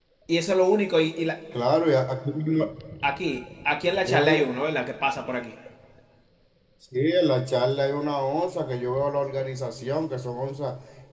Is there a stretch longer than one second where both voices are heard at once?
No

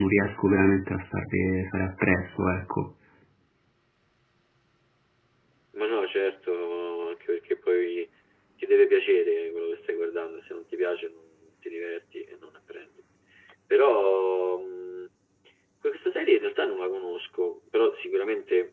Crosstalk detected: No

